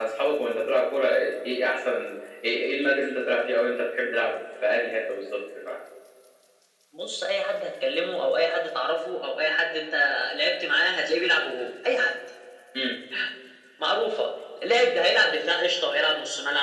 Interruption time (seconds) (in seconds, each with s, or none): none